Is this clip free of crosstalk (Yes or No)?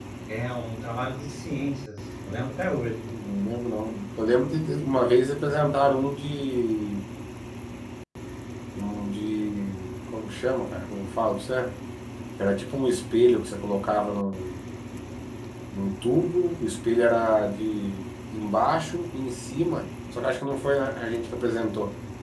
Yes